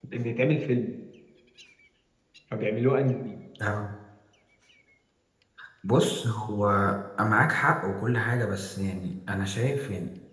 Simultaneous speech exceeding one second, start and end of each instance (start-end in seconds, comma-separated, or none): none